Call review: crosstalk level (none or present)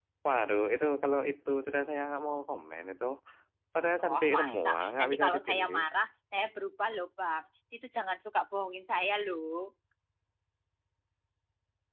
present